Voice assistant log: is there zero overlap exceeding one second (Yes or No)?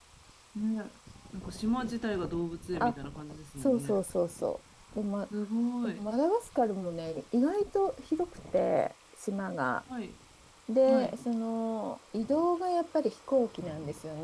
Yes